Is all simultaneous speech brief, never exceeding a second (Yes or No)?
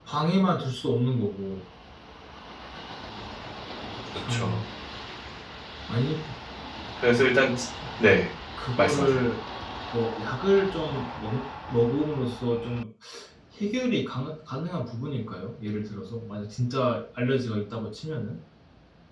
Yes